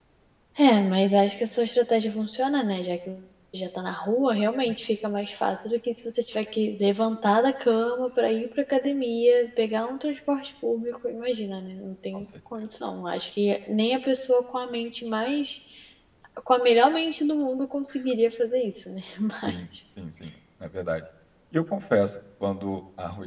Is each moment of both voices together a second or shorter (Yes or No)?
Yes